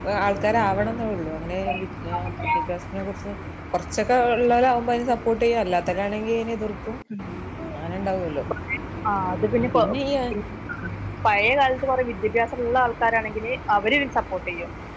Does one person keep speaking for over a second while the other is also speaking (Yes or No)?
No